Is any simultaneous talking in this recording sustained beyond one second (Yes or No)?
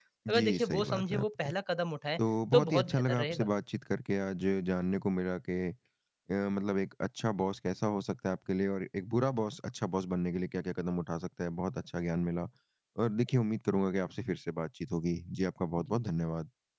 Yes